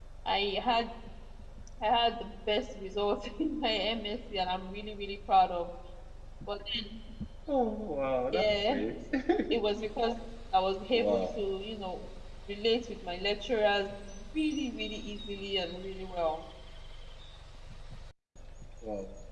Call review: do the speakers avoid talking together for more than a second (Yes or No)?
Yes